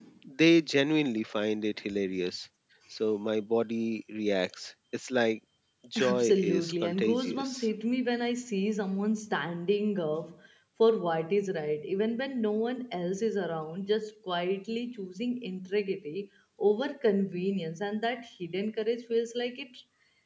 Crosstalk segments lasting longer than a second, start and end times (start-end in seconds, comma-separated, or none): 6.1-7.7